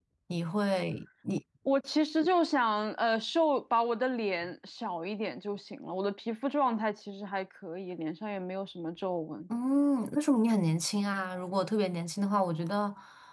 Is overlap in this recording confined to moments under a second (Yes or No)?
Yes